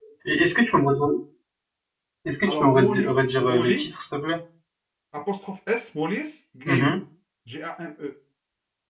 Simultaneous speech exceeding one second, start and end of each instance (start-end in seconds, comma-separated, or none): 2.4-3.9